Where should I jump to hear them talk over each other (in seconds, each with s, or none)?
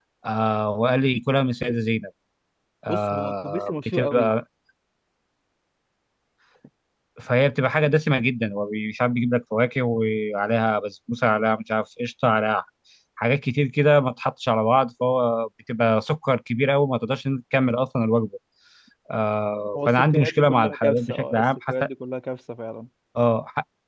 2.9 s